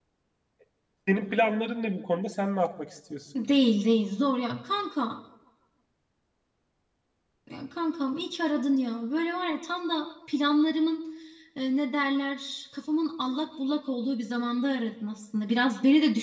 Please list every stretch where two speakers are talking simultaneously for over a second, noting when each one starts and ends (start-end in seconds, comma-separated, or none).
none